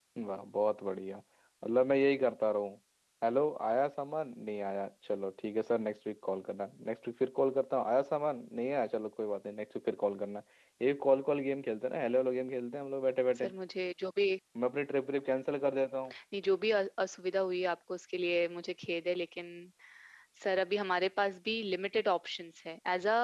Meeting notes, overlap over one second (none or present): none